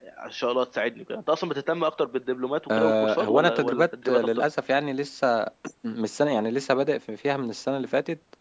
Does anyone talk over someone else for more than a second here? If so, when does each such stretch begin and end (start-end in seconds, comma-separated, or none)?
2.7-4.5